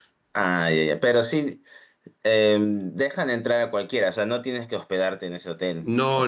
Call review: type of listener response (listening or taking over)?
taking over